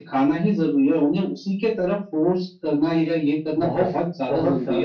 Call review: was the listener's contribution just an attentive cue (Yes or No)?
No